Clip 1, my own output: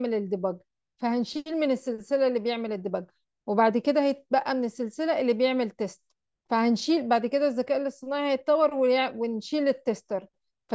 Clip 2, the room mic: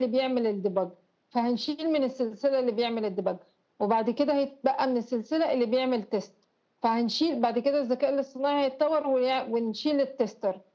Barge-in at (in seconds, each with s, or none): none